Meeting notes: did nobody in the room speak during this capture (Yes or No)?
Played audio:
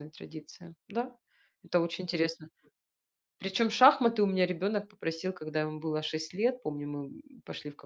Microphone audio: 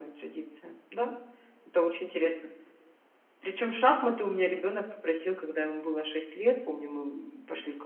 Yes